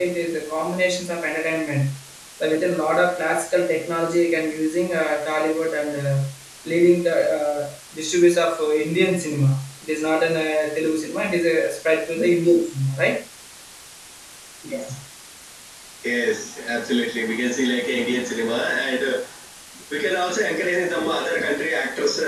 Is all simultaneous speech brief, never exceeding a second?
Yes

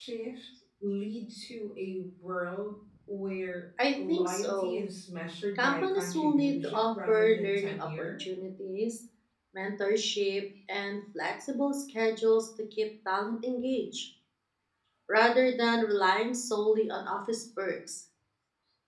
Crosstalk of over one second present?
Yes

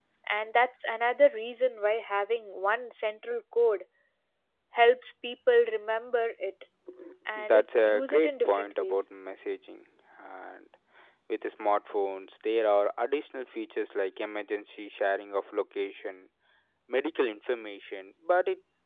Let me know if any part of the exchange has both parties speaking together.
Yes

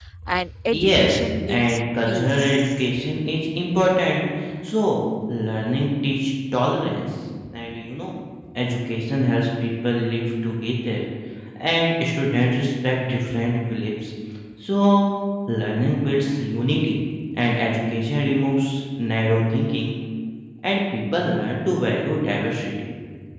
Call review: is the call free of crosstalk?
No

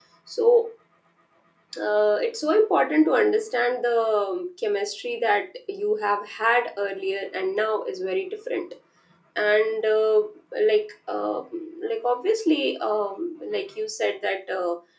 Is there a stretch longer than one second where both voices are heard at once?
No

